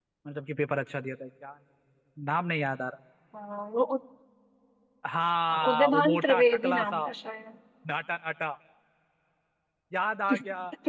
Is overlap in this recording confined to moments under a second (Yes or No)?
No